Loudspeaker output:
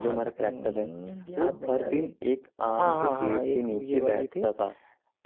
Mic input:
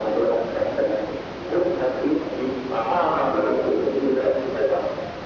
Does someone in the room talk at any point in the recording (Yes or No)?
No